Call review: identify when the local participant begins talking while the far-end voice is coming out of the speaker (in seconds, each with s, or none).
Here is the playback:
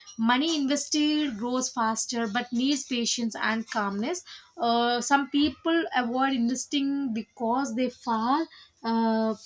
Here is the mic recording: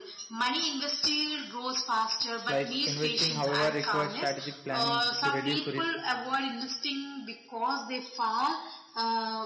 2.5 s